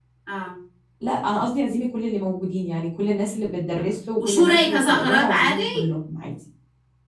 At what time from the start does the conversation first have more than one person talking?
4 s

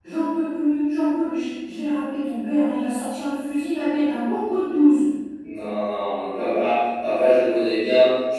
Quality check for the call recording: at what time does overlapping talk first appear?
none

